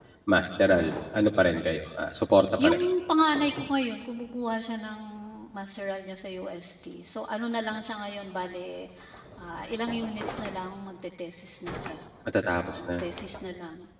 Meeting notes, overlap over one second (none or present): none